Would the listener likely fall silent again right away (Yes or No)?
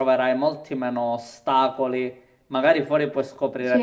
Yes